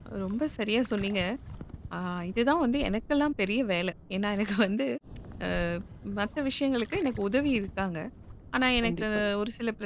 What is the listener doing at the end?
listening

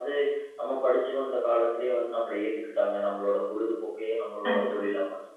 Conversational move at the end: listening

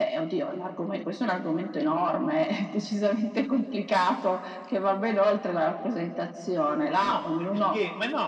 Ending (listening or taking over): taking over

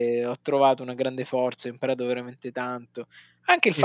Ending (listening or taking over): listening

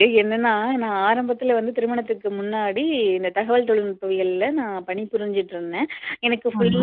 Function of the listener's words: listening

